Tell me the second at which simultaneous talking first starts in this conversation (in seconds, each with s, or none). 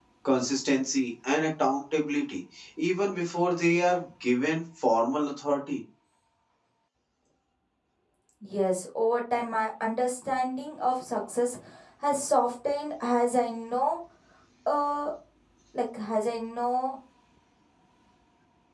none